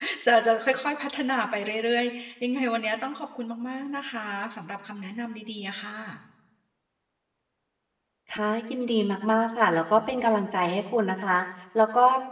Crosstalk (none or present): none